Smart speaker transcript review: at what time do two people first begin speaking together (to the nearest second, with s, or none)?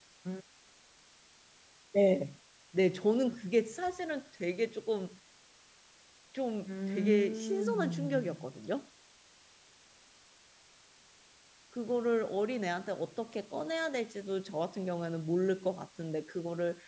7 s